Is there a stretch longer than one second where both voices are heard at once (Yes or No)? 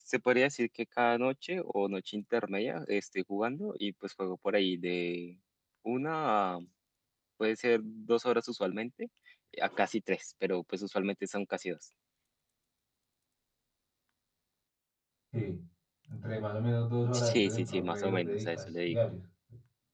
Yes